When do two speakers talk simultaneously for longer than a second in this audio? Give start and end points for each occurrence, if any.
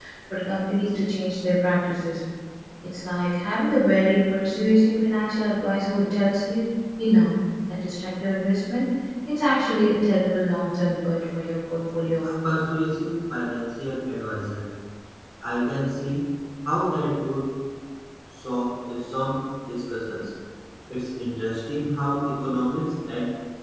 none

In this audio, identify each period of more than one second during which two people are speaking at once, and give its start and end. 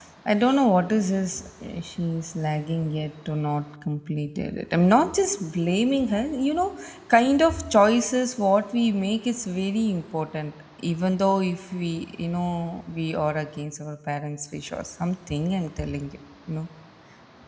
none

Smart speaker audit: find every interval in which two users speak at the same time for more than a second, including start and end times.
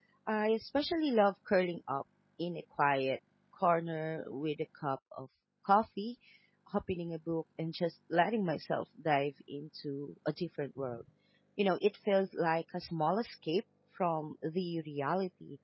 none

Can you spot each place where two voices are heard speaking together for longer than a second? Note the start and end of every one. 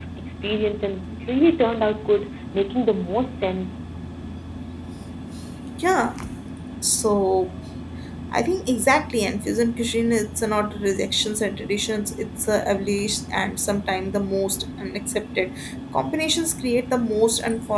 none

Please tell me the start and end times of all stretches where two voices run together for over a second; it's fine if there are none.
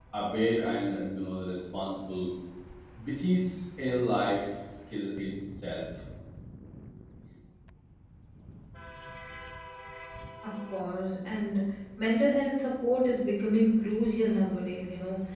none

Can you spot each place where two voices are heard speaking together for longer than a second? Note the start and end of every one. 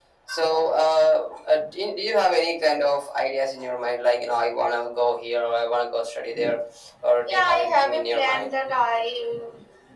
7.3-8.5

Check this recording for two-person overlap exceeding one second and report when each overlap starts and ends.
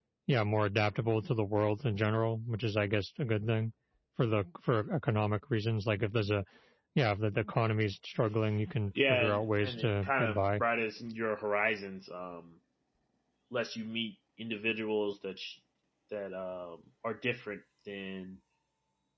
9.1-10.6

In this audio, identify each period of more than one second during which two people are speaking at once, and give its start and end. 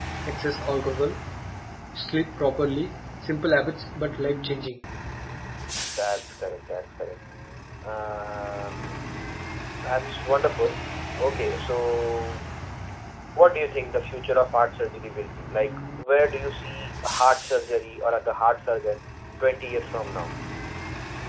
none

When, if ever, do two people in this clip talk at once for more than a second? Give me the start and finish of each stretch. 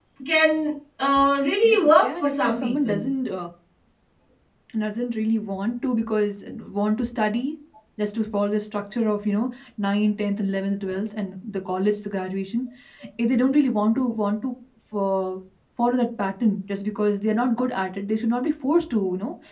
1.6-3.0

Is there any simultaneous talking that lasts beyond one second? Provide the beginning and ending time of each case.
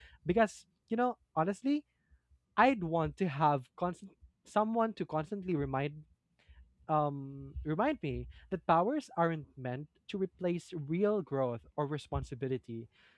none

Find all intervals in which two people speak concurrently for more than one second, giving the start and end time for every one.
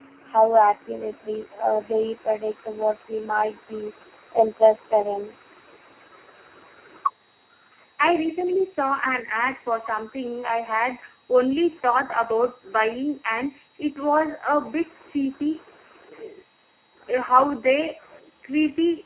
none

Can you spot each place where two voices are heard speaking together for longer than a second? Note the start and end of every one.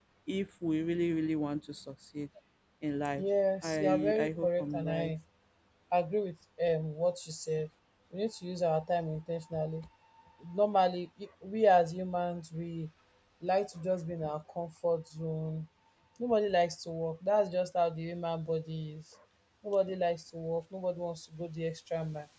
3.6-5.1

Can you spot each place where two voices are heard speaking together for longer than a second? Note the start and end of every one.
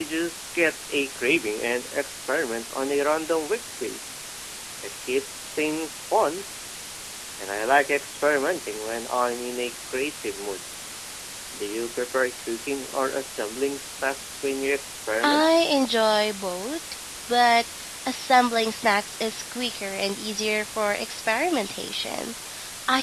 none

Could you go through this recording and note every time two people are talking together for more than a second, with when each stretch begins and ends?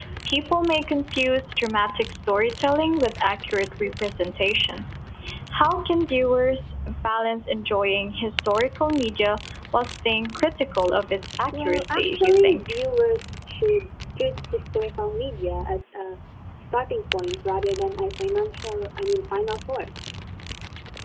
11.6-12.8

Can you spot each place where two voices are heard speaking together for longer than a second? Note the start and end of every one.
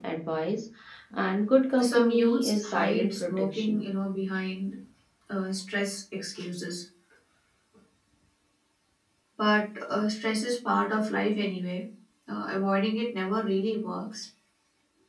1.8-3.8

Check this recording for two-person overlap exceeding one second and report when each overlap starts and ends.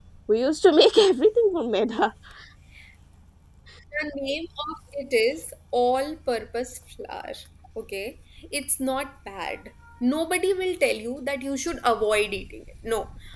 none

